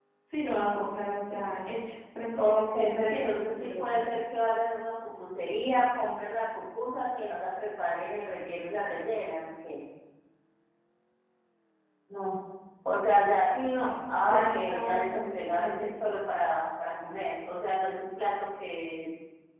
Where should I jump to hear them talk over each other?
2.4 s

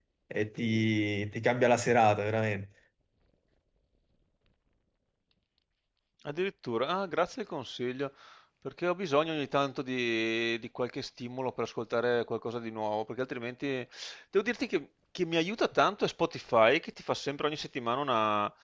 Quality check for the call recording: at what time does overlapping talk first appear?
none

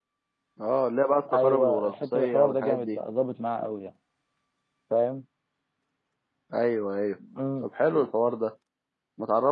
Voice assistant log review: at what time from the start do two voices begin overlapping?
1.3 s

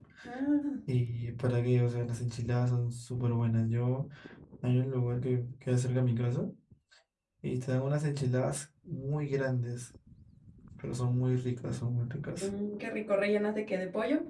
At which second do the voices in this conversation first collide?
none

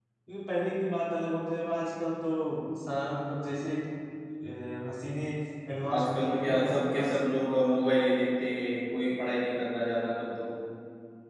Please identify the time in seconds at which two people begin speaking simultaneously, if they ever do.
5.9 s

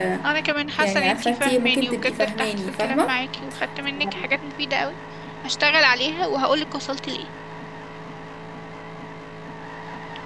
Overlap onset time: 0.8 s

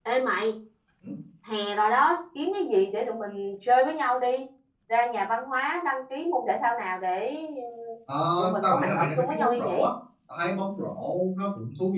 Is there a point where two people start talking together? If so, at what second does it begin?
8.6 s

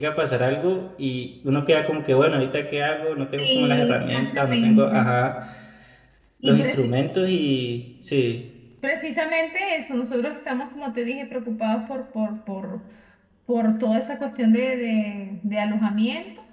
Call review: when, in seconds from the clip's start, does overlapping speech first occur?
3.4 s

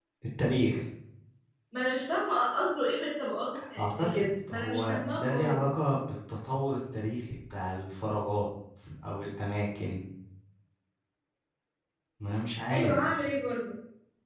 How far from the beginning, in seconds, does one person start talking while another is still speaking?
3.8 s

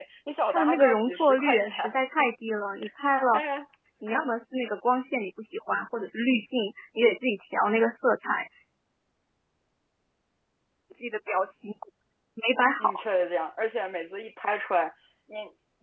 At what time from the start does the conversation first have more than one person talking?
0.5 s

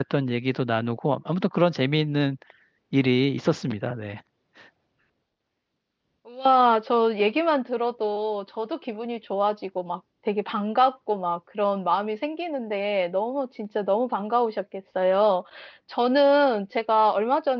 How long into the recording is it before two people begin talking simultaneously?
none

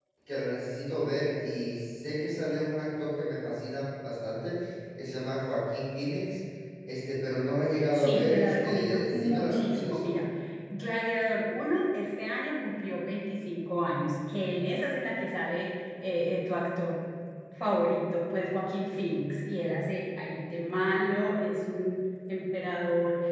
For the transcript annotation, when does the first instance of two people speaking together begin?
7.9 s

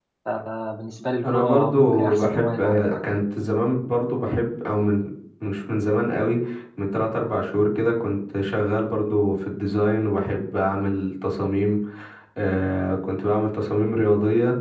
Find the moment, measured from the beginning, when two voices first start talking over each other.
1.2 s

